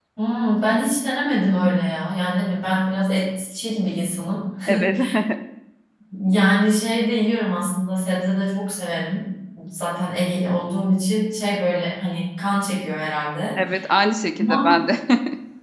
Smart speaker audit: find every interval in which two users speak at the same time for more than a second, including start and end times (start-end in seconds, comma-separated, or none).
none